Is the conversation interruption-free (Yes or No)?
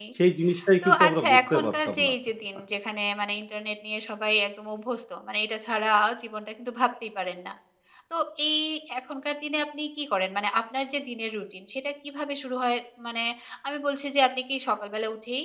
No